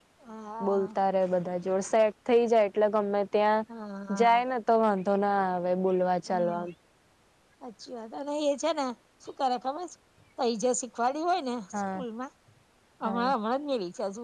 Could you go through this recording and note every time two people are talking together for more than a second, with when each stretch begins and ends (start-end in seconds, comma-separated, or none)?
none